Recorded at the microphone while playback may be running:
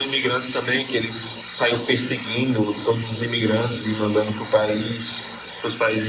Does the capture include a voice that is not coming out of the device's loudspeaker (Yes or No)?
No